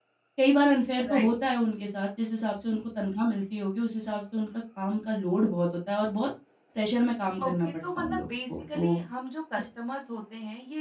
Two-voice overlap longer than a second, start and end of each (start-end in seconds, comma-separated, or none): 7.4-9.0